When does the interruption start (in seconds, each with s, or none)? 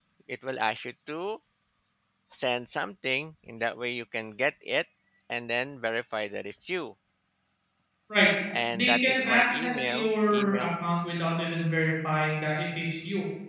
8.7 s